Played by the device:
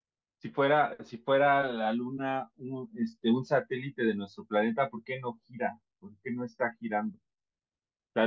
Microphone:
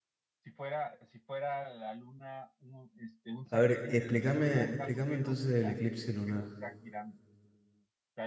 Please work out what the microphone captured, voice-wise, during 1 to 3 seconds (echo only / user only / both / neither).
echo only